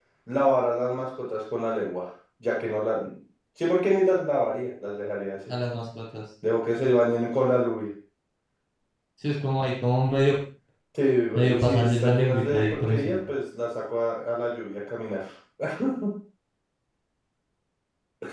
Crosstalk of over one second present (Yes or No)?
Yes